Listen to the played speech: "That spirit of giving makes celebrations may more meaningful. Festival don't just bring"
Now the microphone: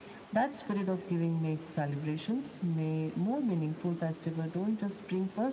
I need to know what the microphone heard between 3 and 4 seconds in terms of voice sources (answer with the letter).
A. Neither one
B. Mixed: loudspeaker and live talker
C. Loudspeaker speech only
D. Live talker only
C